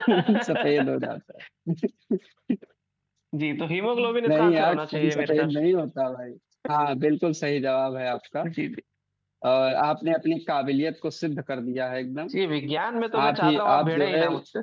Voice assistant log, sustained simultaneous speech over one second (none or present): present